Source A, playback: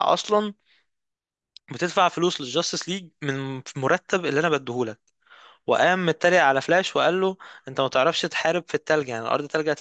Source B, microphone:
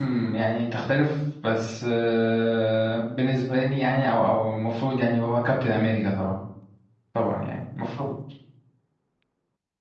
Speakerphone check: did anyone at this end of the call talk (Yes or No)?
Yes